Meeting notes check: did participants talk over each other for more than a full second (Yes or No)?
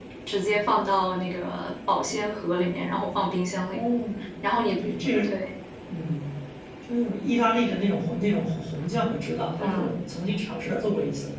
No